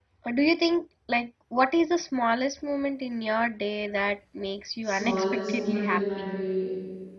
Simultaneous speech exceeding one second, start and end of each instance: 4.8-6.3

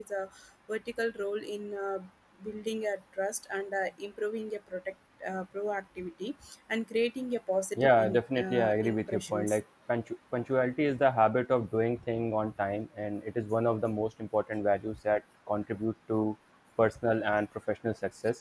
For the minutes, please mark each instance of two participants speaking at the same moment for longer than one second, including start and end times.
7.8-9.6

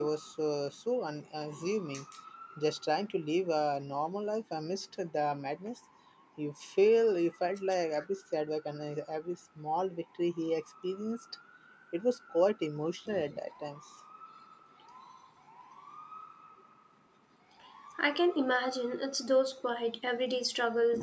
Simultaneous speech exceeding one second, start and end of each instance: none

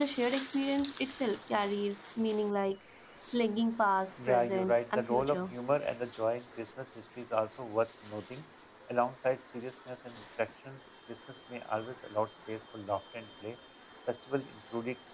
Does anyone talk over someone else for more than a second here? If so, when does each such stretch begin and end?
4.3-5.5

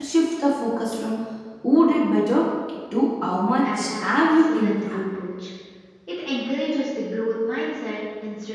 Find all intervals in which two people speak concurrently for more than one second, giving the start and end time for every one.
3.6-4.8

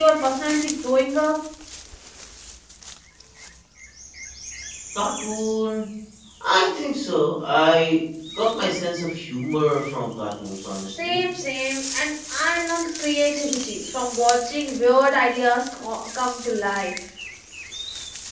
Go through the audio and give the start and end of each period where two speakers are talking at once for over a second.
none

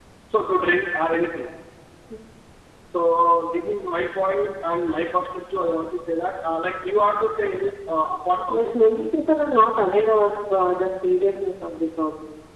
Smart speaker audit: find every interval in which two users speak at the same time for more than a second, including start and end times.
none

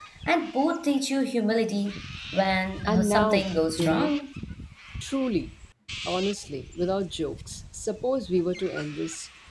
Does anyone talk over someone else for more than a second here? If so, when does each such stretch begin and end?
2.9-4.1

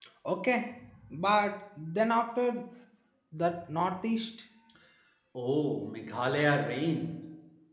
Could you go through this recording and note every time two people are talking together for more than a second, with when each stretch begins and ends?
none

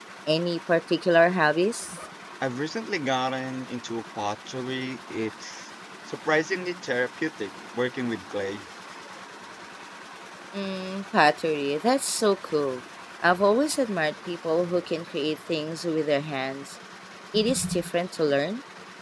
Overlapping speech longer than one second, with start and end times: none

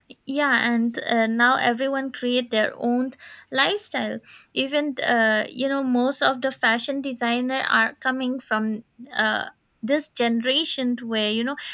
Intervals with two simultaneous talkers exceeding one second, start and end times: none

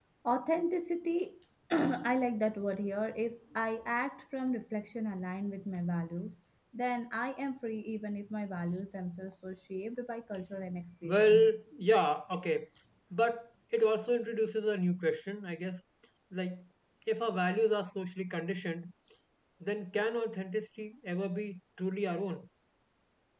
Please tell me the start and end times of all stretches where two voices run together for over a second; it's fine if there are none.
none

